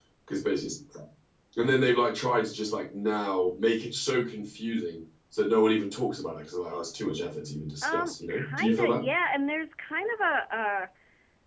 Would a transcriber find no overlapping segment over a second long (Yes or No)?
No